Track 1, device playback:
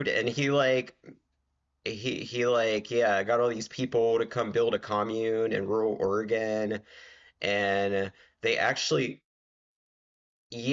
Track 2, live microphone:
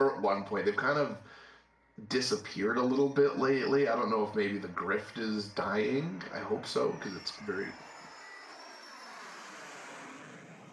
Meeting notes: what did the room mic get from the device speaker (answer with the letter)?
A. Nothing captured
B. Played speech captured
A